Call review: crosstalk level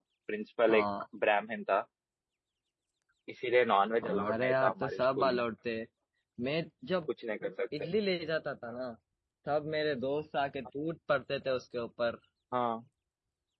present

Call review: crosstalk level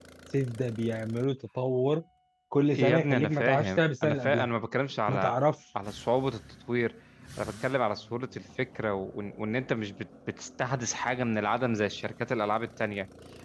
present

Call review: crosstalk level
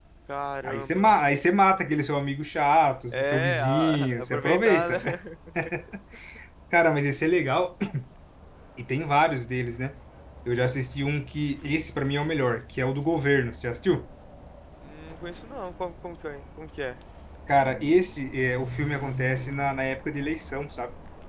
present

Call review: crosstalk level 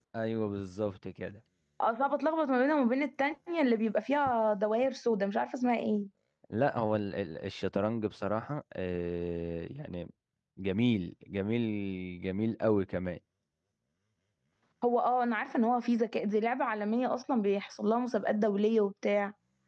none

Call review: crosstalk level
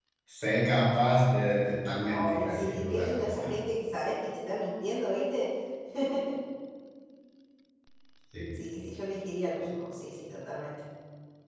present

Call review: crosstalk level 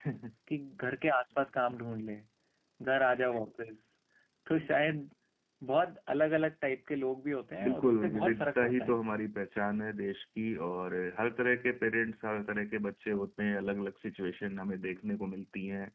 present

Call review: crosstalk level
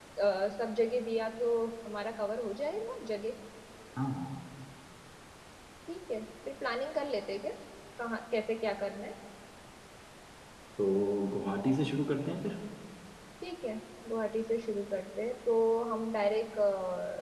none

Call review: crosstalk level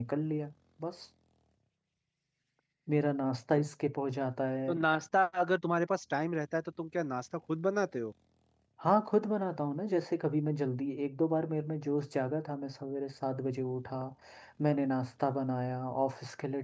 none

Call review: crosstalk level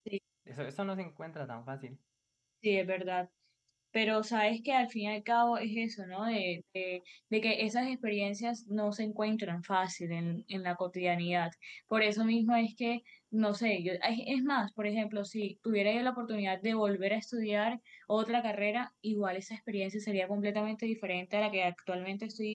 none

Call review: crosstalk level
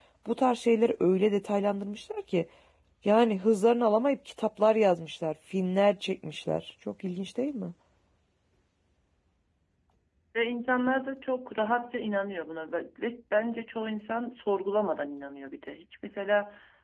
none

